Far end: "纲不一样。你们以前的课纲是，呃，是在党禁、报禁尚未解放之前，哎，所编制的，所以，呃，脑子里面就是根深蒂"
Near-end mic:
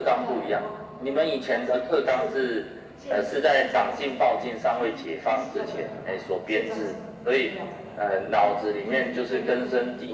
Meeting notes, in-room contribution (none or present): present